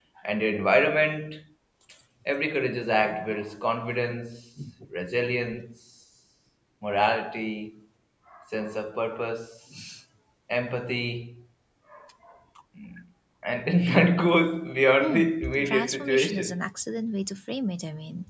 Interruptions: present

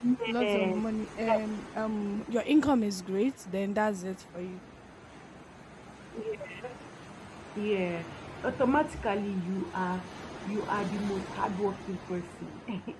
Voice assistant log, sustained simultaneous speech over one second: none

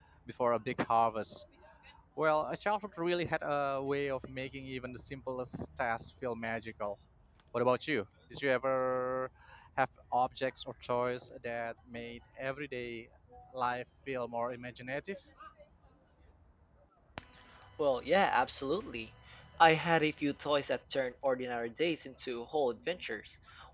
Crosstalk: none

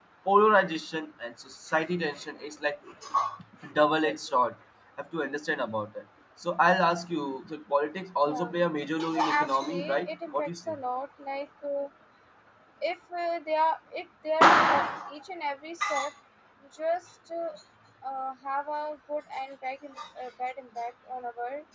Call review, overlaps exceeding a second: present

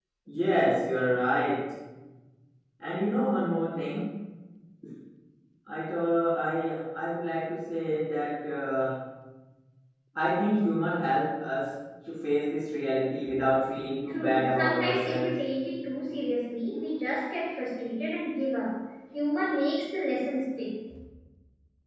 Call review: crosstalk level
present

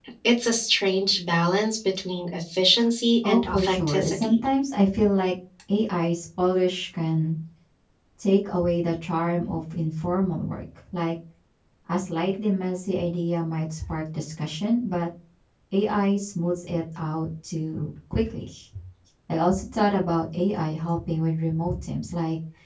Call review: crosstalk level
present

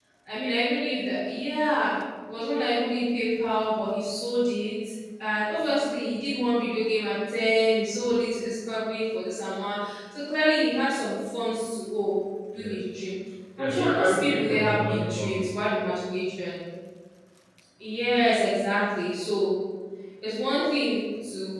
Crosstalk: present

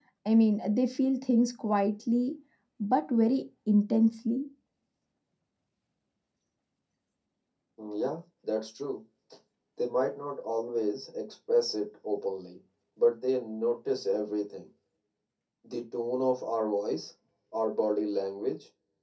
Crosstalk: none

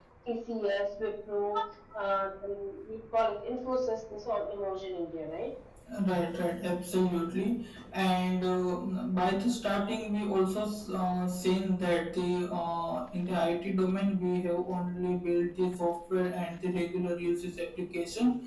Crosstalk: none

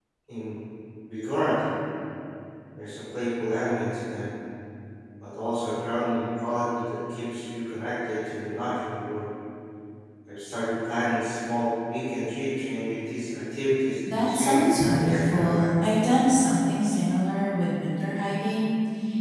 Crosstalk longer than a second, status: present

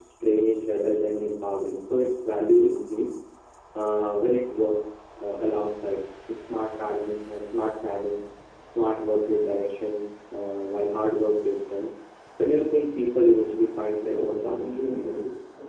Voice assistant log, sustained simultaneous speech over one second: present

